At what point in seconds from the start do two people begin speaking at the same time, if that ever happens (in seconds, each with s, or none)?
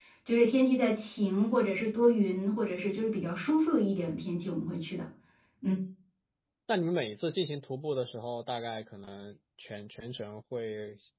none